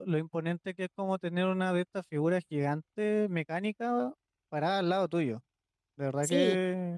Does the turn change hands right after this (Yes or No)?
No